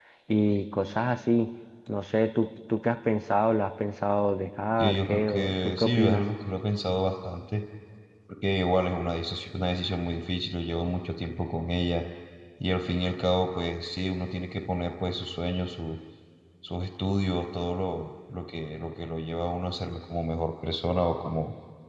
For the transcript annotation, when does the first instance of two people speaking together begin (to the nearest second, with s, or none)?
5 s